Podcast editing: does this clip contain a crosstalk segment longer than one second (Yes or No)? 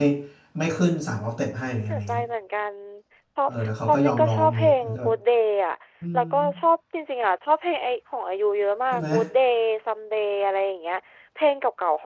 Yes